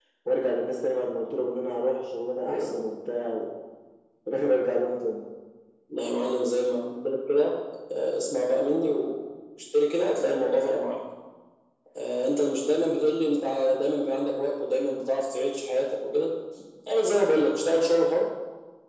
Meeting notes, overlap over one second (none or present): none